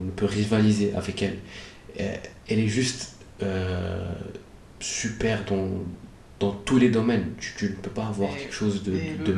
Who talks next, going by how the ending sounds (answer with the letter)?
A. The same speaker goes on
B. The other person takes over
B